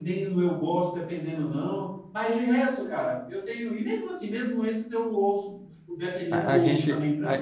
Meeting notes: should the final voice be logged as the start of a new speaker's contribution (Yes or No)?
Yes